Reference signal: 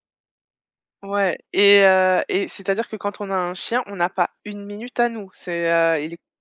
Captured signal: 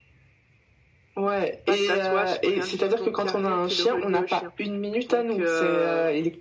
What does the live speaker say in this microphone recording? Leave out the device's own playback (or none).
pas de tatouage, rien du tout, donc il y a rien qui le reliait au chien. Donc heu,